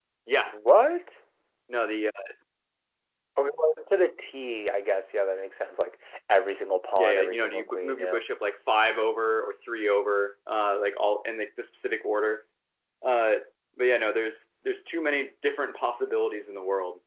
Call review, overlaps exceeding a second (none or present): present